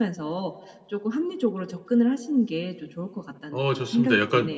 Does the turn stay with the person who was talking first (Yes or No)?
No